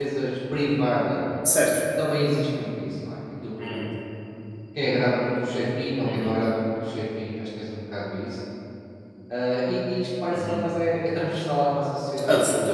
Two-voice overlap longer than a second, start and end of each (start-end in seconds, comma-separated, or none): none